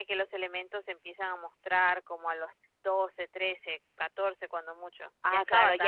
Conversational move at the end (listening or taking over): taking over